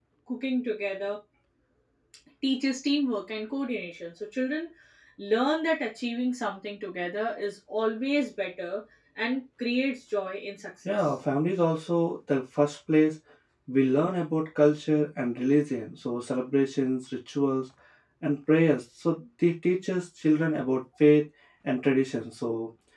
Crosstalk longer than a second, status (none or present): none